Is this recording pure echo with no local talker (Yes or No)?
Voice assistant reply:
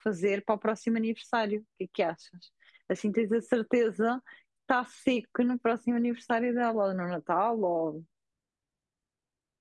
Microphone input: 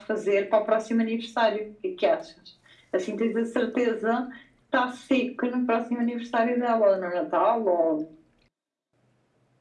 Yes